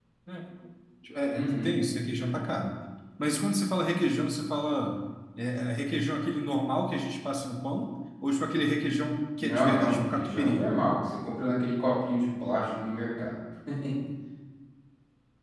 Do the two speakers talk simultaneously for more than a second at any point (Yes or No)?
Yes